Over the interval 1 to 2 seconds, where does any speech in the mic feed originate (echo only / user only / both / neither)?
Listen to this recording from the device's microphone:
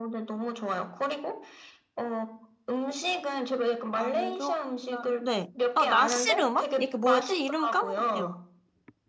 echo only